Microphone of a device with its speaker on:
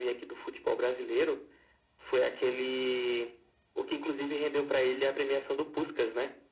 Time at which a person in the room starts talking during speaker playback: none

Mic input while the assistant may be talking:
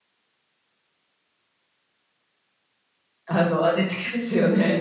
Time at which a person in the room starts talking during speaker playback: 3.3 s

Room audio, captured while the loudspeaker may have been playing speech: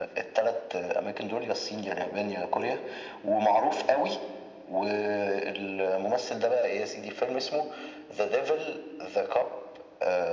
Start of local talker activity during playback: none

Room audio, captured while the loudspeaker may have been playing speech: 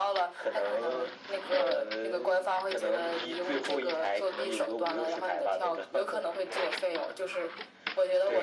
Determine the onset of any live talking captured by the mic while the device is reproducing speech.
none

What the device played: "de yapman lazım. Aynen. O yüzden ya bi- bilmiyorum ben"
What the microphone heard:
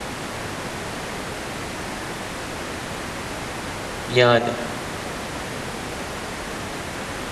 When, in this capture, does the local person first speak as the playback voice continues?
4.1 s

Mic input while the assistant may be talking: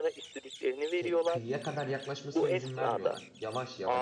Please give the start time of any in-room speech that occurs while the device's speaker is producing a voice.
0.9 s

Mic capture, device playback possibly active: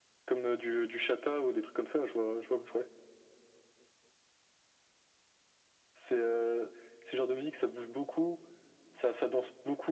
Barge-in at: none

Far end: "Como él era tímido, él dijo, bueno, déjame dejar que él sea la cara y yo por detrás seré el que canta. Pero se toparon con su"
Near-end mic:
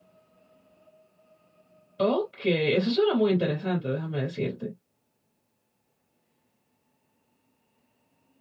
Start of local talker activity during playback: 2.0 s

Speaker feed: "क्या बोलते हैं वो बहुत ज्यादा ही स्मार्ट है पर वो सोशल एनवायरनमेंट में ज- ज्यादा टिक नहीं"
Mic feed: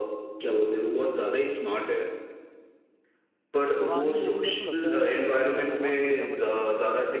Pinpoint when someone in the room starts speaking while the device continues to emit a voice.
3.8 s

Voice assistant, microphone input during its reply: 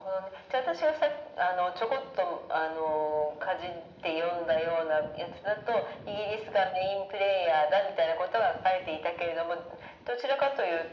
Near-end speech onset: none

